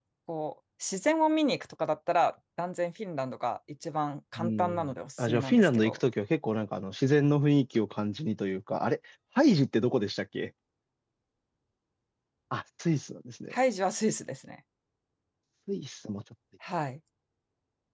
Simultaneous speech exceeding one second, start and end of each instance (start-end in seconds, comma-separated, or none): 4.4-6.0